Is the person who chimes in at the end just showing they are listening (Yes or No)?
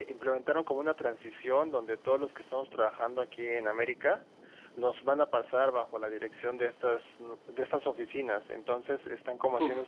Yes